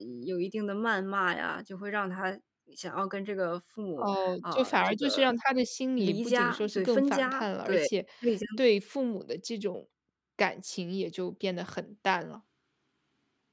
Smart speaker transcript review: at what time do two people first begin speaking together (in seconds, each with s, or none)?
4.0 s